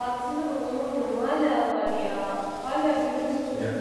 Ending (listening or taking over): listening